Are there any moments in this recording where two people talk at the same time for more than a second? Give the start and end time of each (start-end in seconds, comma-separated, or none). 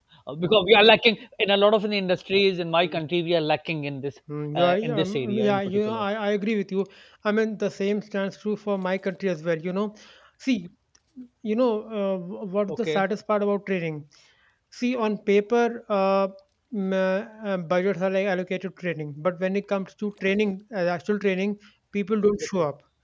4.5-6.0